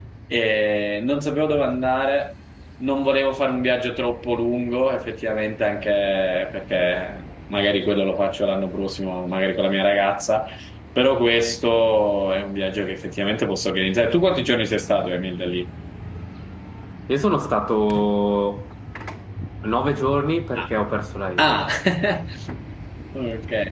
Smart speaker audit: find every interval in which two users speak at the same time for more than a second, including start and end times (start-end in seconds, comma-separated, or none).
none